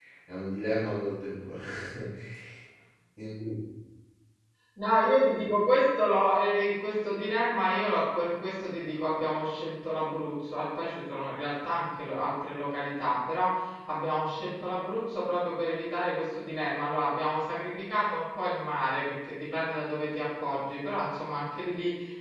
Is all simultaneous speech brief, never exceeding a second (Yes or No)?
Yes